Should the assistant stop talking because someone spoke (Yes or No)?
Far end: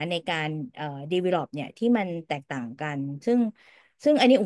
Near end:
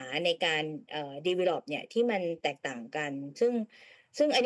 No